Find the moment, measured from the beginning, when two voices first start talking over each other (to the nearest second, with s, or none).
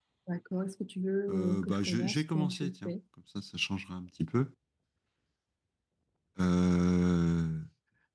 1 s